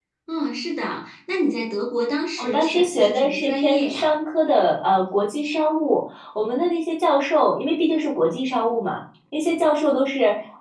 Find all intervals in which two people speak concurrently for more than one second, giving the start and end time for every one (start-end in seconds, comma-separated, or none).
2.4-4.1